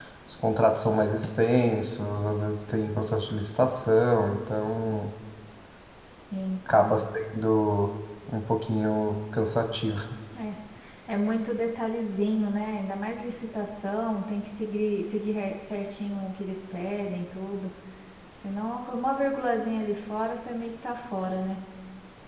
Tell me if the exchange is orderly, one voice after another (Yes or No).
Yes